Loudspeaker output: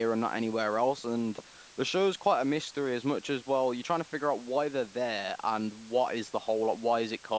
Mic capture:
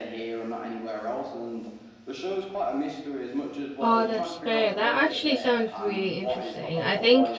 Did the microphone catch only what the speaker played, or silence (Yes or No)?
No